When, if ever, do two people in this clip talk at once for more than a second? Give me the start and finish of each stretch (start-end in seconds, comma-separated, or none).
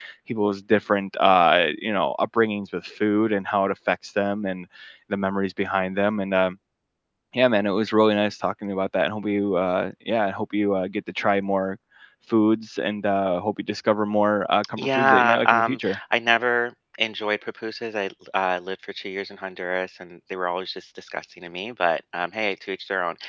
14.8-16.0